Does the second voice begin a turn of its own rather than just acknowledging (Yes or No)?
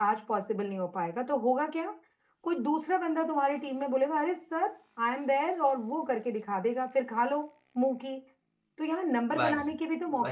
No